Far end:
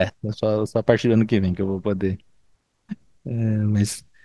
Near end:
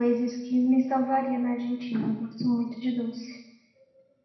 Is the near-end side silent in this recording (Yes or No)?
No